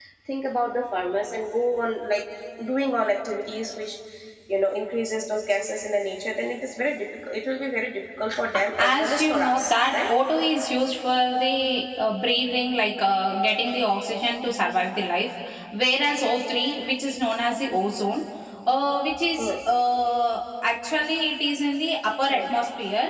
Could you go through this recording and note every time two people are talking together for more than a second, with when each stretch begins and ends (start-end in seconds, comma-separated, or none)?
8.8-10.0